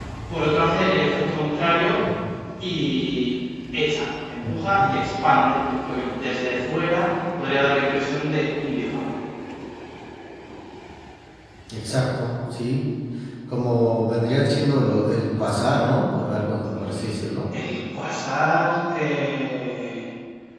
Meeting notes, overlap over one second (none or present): none